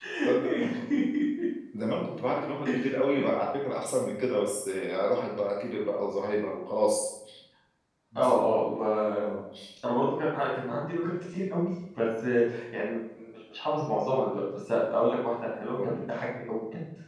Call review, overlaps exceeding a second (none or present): none